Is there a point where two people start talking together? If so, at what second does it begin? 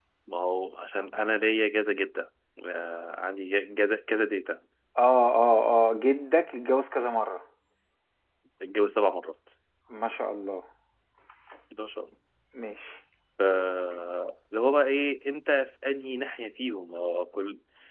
none

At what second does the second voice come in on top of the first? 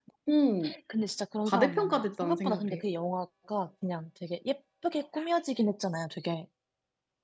1.5 s

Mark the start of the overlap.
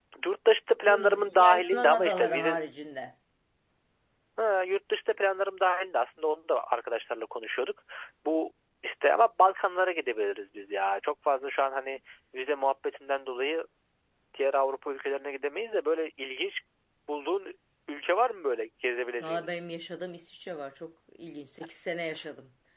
0.8 s

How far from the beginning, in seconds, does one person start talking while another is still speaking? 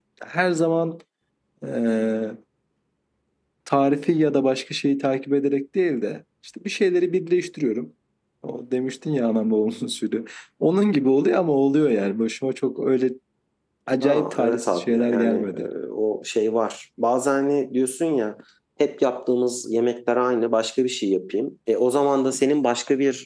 14.0 s

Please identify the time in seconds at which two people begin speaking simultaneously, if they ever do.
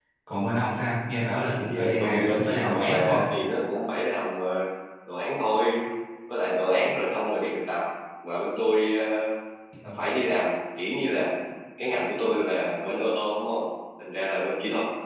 1.5 s

